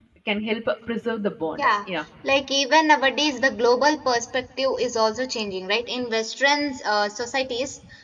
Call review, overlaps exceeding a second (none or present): none